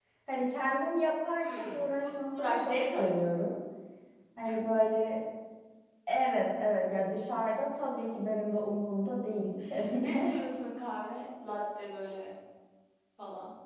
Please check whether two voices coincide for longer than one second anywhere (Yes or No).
Yes